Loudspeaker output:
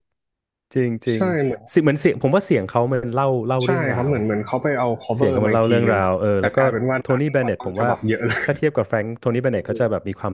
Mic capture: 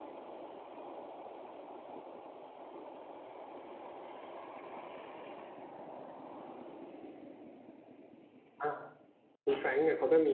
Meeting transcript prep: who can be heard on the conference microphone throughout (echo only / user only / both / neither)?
user only